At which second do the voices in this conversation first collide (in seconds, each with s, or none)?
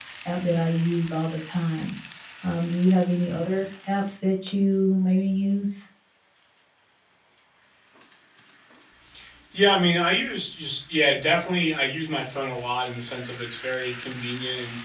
none